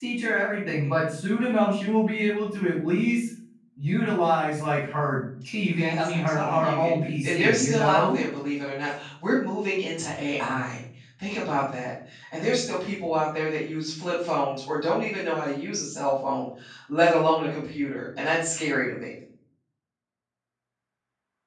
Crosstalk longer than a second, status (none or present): present